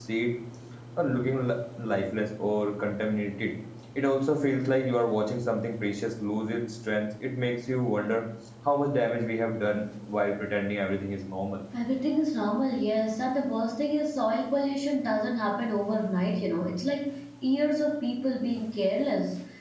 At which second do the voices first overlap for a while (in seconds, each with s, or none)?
none